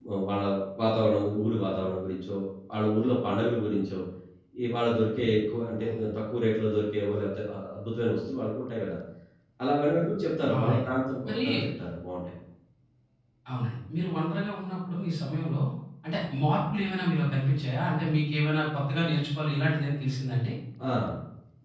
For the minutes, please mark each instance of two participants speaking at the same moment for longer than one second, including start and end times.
none

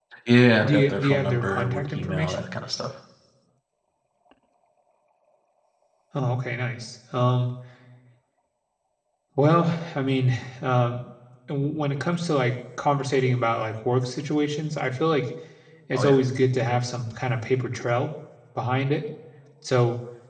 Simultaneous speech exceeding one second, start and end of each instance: 0.6-2.5

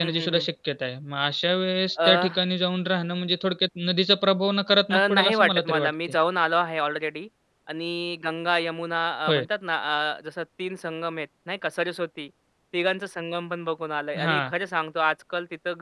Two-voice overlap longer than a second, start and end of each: 4.9-6.1

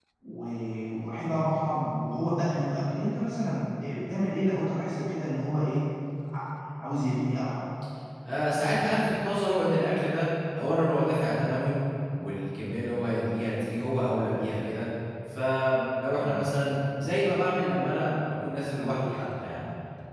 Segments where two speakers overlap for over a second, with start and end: none

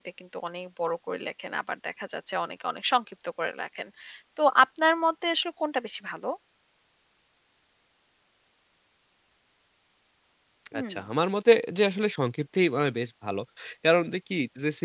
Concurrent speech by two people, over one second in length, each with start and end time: none

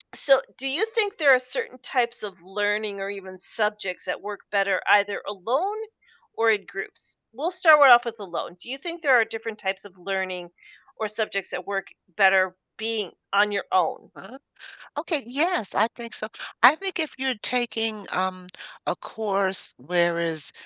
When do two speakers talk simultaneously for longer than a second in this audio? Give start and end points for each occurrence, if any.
none

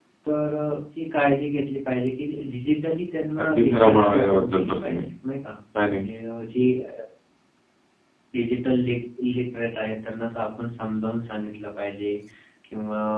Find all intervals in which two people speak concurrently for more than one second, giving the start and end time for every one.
3.4-5.0

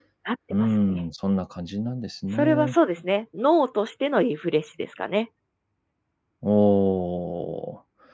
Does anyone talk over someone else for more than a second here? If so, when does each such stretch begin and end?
none

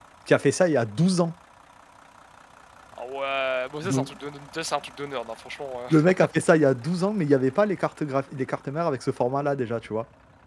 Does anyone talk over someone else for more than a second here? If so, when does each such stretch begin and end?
none

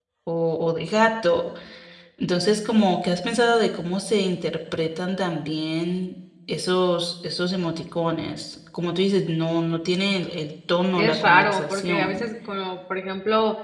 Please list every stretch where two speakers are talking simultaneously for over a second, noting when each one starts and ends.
11.0-12.2

